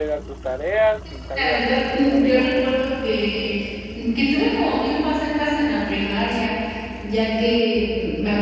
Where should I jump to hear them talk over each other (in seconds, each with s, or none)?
1.3 s